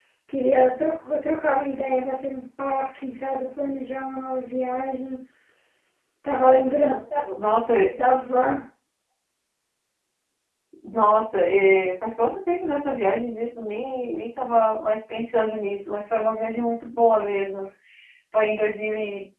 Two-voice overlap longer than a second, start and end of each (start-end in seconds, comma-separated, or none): none